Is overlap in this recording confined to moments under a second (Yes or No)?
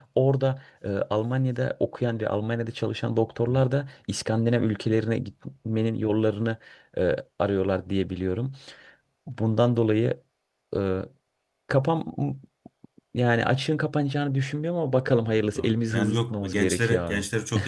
No